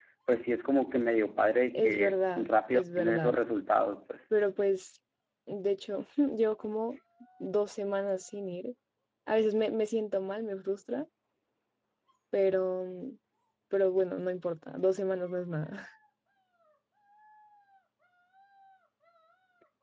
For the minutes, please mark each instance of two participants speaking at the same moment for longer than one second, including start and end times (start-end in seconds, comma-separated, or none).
1.7-3.3